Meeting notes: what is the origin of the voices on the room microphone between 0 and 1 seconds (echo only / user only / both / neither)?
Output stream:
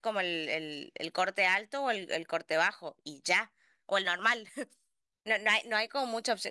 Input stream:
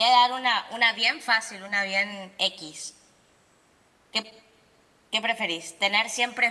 user only